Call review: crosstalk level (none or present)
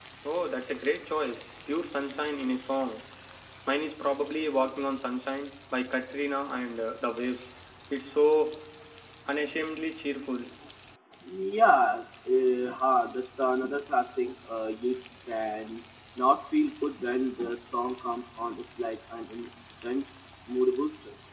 none